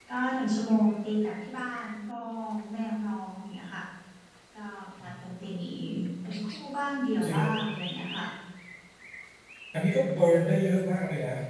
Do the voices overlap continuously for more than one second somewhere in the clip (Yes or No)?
No